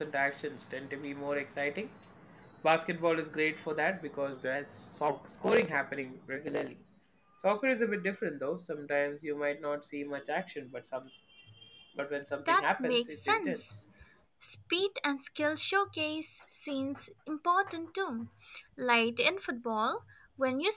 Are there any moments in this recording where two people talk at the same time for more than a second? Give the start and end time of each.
12.4-13.8

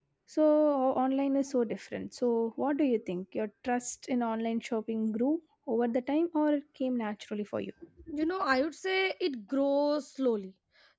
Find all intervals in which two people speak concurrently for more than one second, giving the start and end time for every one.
none

